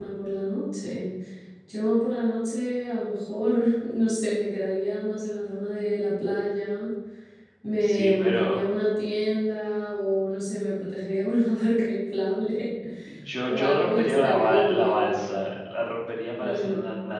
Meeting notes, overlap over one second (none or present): present